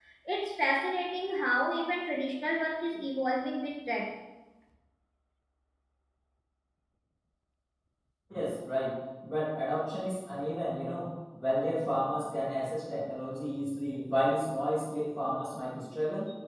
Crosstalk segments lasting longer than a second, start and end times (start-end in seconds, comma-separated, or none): none